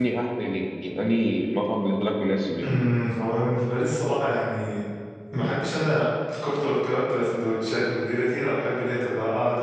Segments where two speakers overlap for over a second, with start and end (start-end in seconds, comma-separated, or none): none